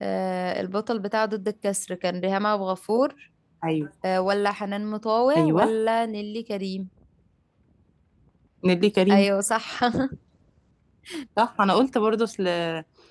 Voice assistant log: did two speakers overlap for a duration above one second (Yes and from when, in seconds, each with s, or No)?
No